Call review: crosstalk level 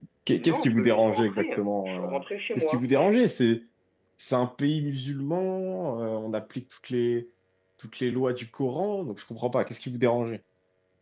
present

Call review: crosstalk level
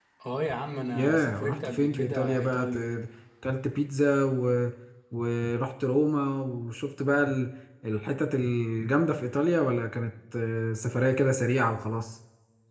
present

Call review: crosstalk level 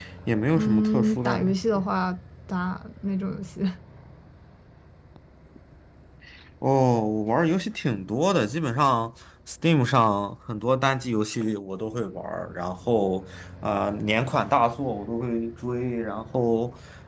present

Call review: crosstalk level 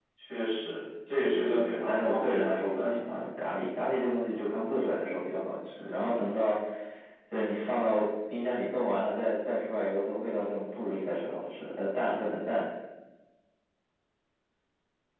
present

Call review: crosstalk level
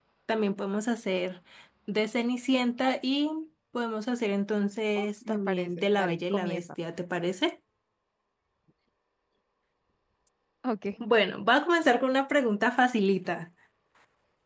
present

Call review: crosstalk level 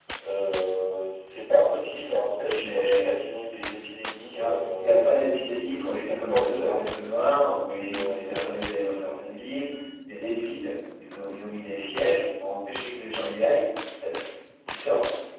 present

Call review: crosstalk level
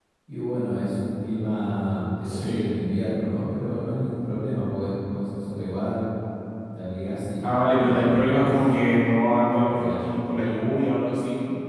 present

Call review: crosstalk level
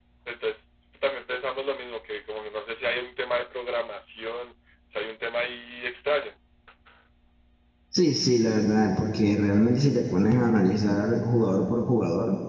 none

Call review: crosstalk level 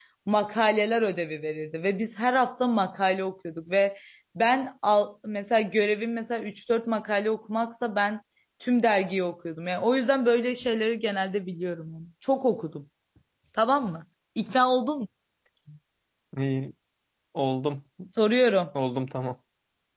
none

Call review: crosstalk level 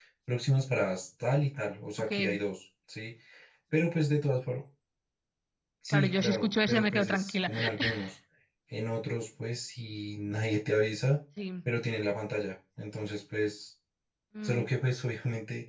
present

